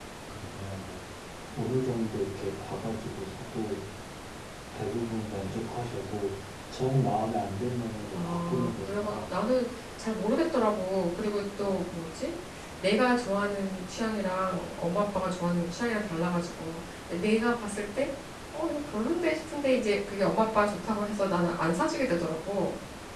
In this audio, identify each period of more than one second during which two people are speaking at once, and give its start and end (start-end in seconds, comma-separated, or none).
8.1-9.3